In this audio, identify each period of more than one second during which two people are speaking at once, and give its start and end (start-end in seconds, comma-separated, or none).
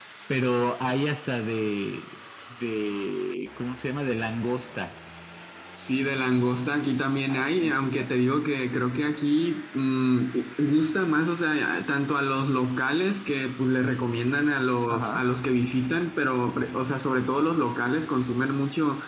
none